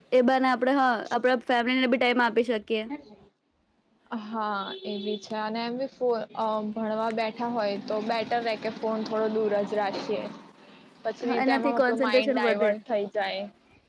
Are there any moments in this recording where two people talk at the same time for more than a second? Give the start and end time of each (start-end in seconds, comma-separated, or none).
11.4-12.7